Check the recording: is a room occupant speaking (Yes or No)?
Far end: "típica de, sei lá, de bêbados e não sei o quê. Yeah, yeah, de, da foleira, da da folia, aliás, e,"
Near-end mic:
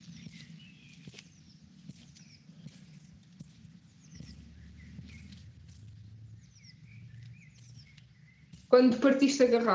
Yes